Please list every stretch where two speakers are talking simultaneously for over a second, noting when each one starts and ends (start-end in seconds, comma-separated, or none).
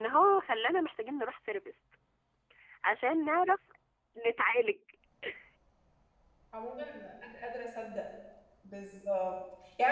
none